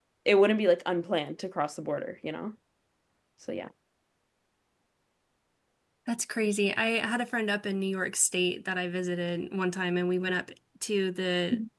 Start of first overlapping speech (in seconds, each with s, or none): none